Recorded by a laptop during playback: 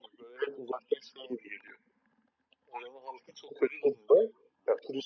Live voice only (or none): none